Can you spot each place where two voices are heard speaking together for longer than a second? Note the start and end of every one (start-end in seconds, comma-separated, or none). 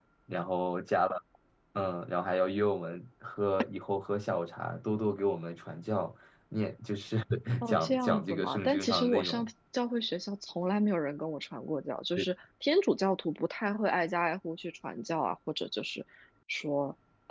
7.7-9.5